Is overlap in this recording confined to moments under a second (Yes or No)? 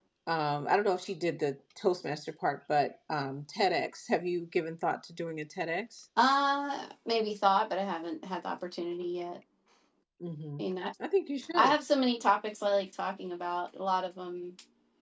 Yes